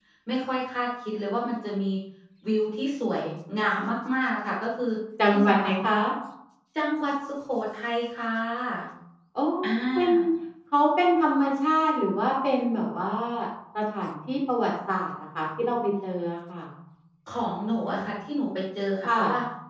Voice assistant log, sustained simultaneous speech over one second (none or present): none